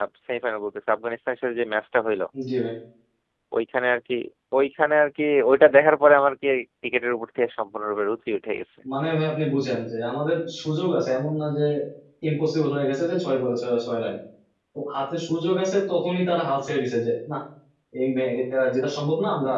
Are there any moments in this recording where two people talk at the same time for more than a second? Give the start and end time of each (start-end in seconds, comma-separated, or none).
none